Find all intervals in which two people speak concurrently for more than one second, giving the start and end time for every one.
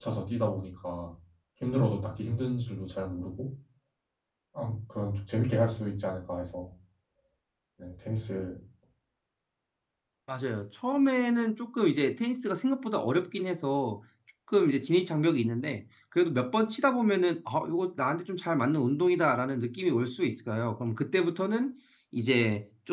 none

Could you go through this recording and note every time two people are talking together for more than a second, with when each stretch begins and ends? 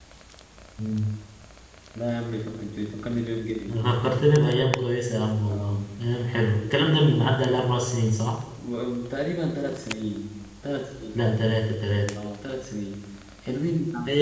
none

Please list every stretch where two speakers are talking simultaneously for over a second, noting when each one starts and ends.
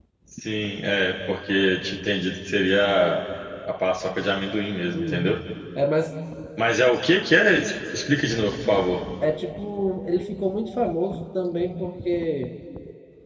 none

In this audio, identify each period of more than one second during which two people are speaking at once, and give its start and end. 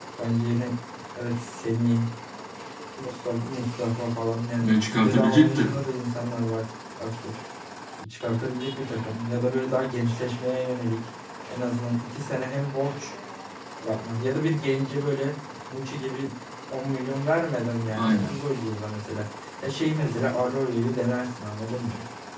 4.6-5.8

